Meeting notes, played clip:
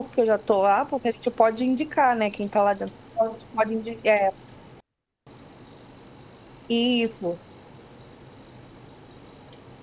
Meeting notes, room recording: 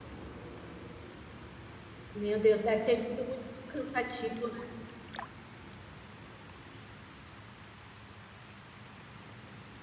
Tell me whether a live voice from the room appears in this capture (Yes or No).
Yes